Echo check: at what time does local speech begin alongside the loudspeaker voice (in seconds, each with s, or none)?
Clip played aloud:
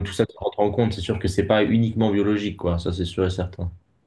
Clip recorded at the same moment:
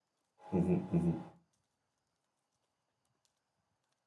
0.5 s